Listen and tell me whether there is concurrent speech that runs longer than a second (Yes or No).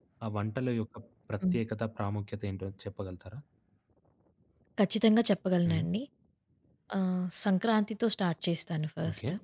No